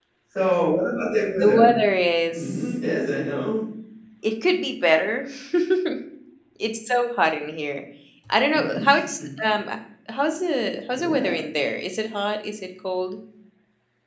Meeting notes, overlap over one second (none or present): none